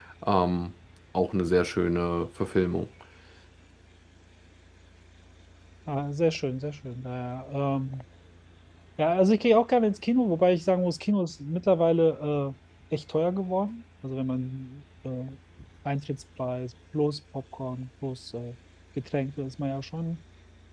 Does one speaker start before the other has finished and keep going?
No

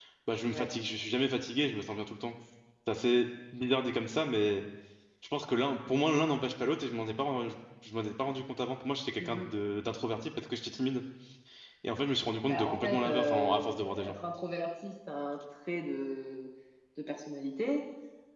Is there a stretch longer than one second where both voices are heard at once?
Yes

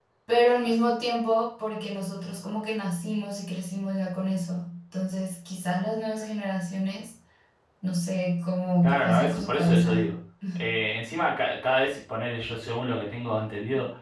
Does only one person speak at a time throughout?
No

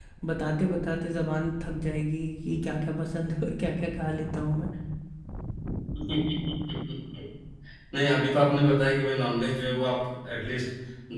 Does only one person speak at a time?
Yes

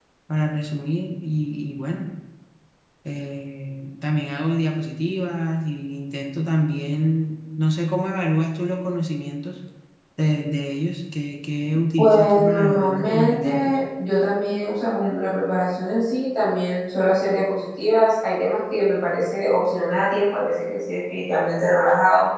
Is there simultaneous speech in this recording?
Yes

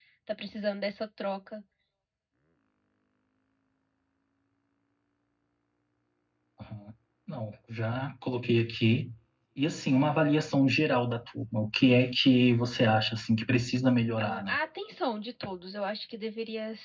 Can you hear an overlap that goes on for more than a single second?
No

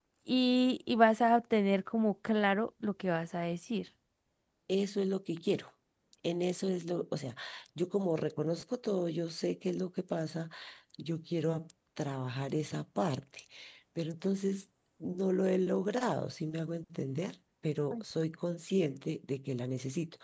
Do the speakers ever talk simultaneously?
No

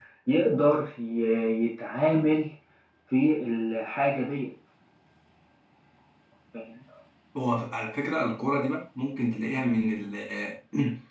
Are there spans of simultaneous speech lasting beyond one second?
No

